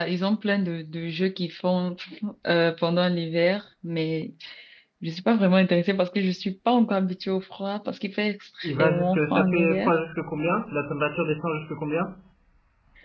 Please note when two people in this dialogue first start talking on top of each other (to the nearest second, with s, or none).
9 s